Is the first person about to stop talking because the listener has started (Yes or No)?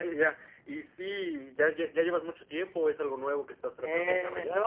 Yes